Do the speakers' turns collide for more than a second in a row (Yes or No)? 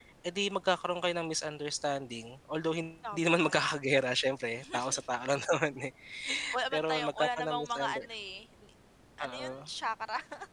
Yes